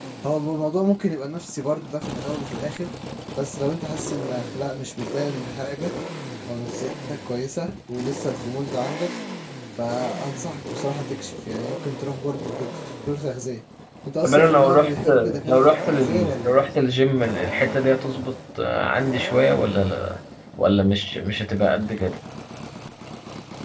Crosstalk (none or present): present